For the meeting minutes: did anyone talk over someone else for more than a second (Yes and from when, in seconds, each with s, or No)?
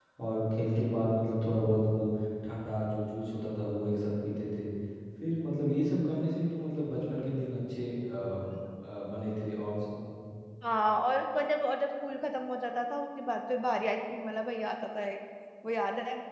No